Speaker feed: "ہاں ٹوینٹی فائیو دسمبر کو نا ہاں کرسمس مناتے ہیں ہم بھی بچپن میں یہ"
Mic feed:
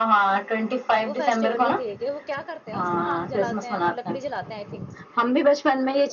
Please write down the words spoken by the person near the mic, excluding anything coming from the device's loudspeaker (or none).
وہ فیسٹیول بھی ٹھیک ہے وہ کیا کرتے ہیں اس میں آنگ جلاتے ہیں وہ لکڑی جلے ہیں آئی تھنک